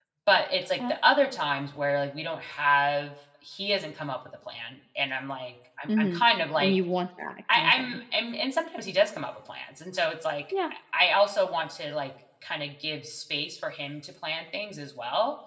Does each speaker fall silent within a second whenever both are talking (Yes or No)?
Yes